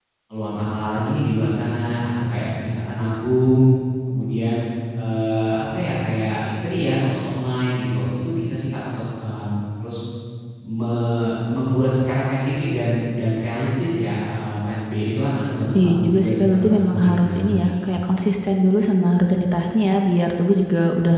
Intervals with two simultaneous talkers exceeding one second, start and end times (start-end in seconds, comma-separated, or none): 15.8-17.9